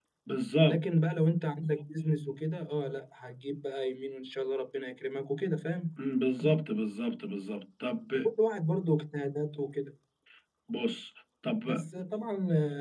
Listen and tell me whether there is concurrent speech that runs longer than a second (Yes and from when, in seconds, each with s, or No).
No